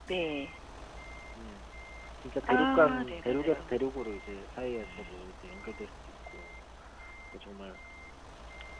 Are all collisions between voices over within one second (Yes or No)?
No